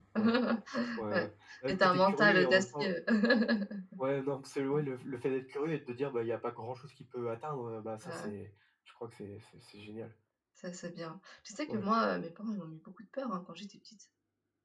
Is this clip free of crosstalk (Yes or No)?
No